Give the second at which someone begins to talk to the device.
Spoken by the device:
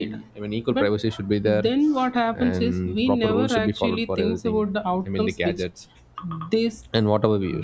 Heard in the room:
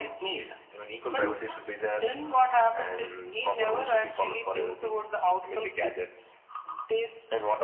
1 s

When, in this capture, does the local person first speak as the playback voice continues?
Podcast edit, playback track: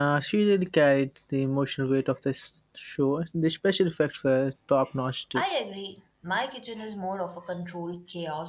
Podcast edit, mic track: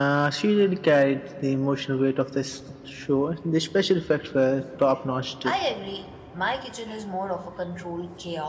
none

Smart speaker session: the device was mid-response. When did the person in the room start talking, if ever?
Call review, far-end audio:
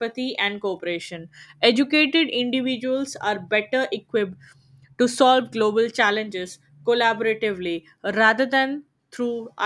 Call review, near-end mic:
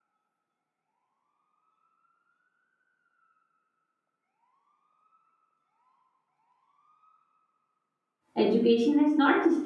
8 s

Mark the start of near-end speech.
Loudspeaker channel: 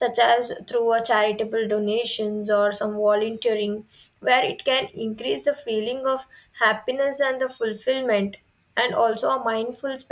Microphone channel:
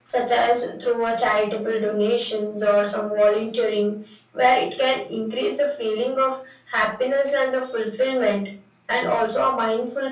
none

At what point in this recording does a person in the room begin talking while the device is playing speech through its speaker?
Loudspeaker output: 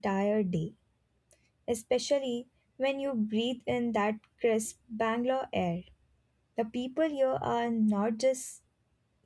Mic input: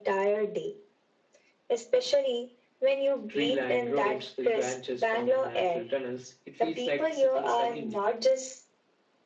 3 s

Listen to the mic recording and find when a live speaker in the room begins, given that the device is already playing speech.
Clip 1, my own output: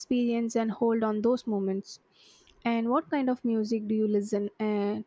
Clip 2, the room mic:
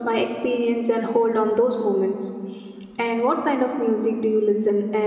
none

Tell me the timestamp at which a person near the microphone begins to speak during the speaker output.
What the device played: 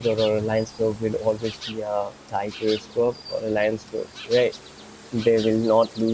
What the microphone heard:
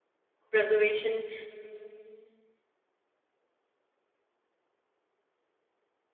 0 s

